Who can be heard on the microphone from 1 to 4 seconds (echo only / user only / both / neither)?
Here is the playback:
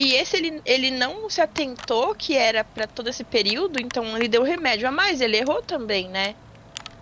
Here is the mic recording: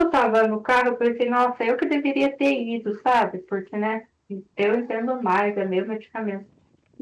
user only